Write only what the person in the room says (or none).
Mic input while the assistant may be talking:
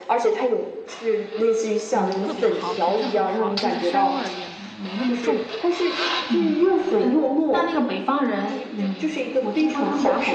嗯，特别好，品质很好，就是膻味儿也没那么重，